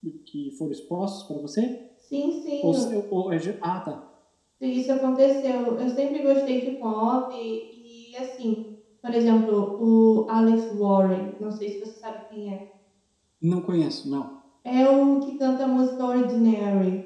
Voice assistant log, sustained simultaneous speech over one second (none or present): none